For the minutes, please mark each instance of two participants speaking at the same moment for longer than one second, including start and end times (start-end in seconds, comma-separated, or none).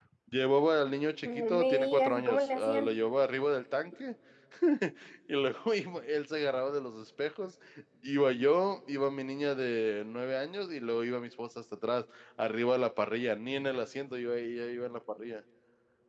1.2-3.0